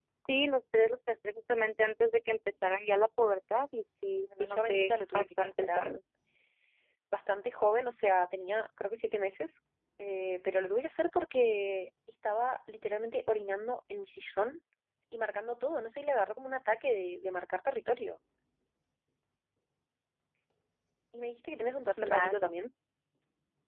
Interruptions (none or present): present